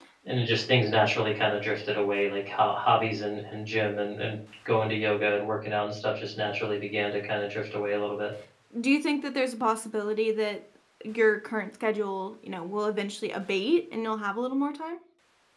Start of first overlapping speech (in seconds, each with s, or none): none